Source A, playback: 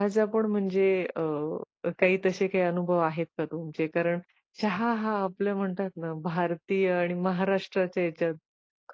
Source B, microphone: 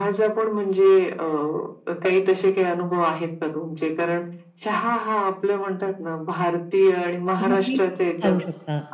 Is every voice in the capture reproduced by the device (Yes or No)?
No